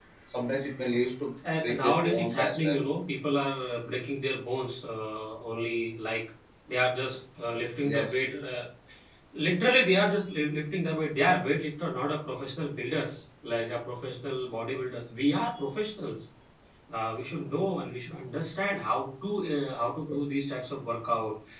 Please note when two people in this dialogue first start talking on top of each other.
2 s

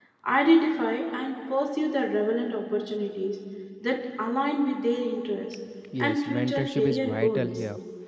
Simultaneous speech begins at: 6 s

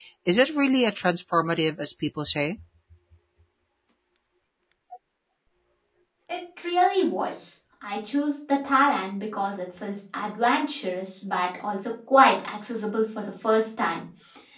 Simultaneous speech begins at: none

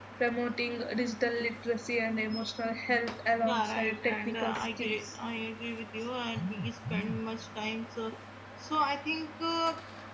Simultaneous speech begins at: 3 s

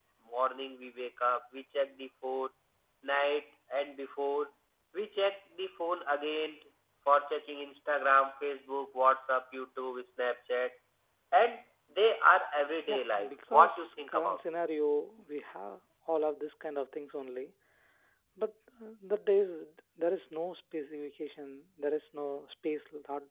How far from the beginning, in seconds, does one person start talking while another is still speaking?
13 s

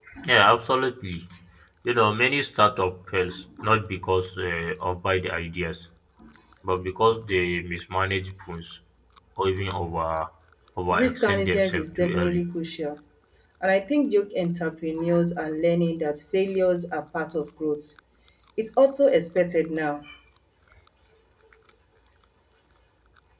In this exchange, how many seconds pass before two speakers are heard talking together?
11 s

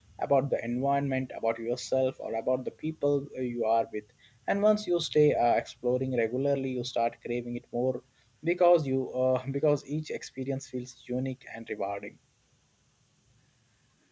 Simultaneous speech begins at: none

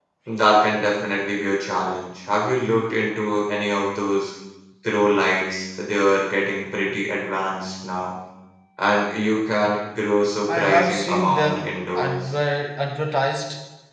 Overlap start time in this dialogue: 10 s

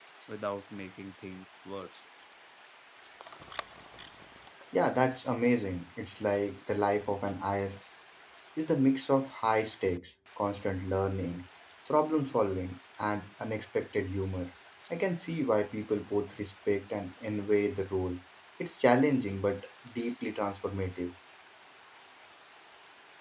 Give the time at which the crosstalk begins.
none

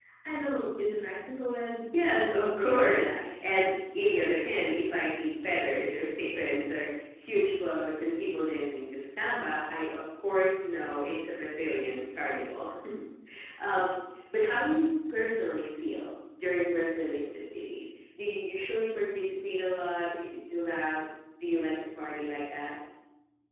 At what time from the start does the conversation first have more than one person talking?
2 s

